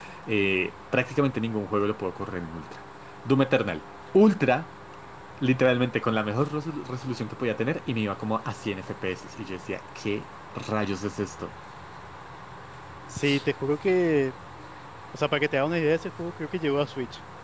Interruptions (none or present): none